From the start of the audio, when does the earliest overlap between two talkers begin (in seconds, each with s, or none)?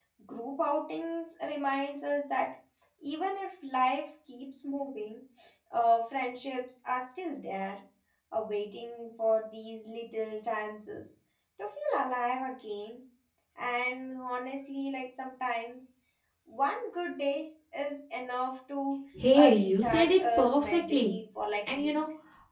19.1 s